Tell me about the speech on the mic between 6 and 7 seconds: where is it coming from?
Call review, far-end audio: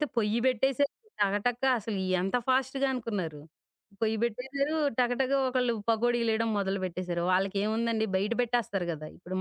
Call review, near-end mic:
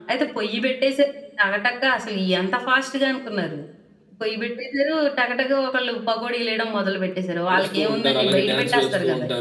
echo only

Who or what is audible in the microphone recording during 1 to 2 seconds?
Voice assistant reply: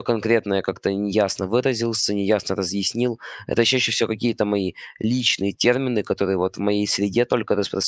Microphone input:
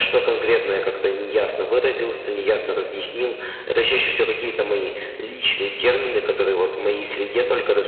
echo only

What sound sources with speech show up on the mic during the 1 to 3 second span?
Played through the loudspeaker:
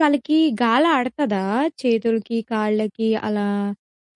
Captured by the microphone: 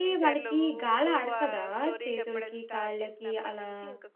both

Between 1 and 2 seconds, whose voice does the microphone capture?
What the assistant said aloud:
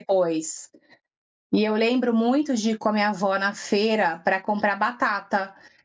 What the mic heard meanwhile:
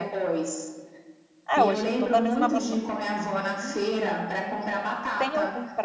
both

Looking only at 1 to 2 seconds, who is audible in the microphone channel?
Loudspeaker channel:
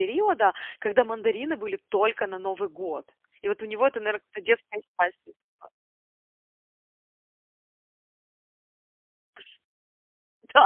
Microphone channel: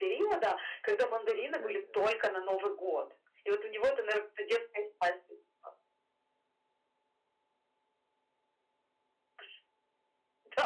both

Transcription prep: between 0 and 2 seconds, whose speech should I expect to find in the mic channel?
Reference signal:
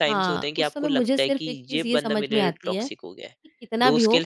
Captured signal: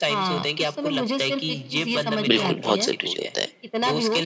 echo only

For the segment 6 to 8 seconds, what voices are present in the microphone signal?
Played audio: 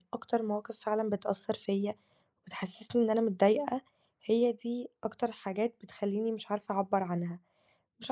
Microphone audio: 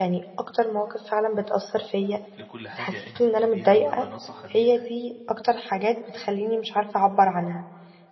echo only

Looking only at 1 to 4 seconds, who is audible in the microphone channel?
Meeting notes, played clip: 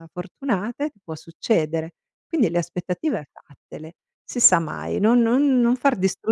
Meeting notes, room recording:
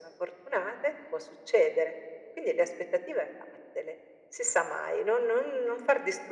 echo only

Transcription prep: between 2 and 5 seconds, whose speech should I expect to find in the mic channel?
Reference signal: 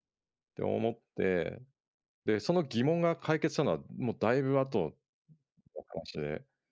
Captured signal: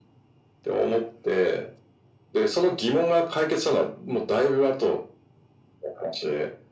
echo only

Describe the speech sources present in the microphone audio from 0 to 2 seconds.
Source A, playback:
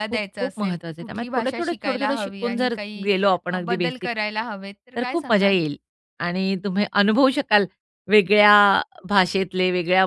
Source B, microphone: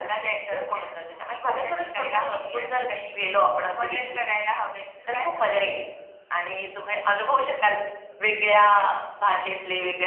echo only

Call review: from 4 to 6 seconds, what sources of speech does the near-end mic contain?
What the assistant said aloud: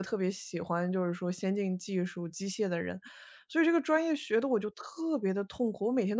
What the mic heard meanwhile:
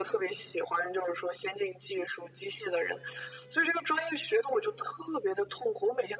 echo only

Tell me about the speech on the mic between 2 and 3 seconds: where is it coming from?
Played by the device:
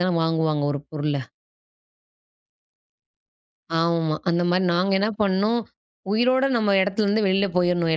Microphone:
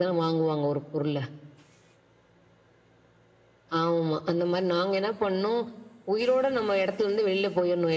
neither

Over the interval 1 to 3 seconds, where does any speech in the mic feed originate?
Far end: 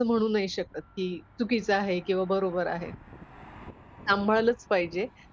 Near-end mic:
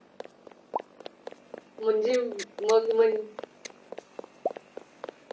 user only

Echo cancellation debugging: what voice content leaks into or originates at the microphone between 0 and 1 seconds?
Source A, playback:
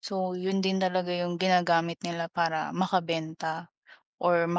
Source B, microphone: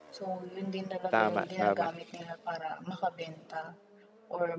echo only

